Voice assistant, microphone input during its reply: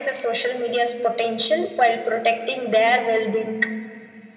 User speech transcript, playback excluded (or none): none